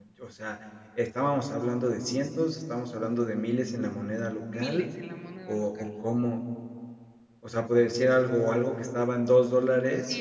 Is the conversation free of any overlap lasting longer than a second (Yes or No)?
Yes